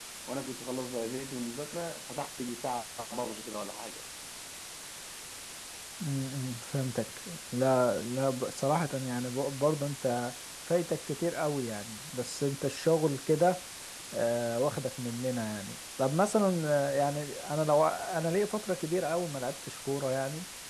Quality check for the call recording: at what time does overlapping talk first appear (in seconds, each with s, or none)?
none